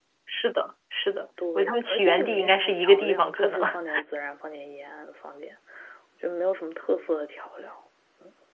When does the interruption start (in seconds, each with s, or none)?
1.4 s